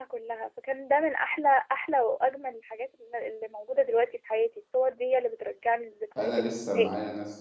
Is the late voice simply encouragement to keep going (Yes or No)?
No